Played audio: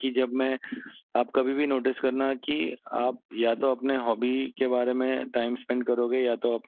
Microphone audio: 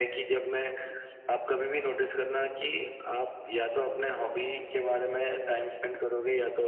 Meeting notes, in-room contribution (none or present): none